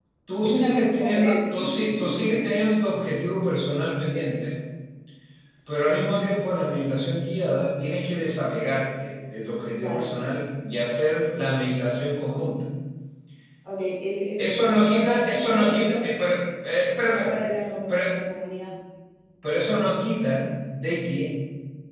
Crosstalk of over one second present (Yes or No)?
Yes